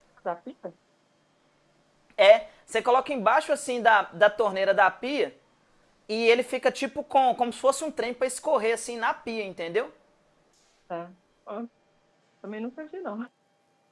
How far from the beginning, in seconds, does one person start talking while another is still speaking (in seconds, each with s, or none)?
none